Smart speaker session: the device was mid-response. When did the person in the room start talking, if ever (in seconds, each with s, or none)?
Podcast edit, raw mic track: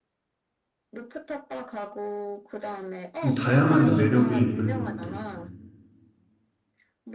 3.2 s